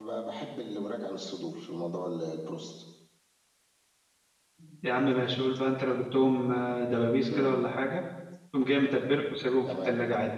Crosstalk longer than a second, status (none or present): none